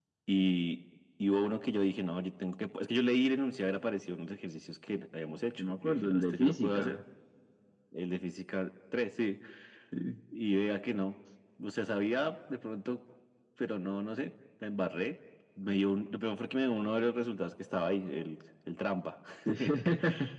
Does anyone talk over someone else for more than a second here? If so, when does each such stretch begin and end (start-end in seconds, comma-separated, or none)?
5.6-7.0